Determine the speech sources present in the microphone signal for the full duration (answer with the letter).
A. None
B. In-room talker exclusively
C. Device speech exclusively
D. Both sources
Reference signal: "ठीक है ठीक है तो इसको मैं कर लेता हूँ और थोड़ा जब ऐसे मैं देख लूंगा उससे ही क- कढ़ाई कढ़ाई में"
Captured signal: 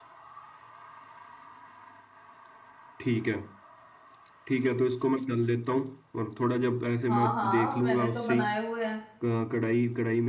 D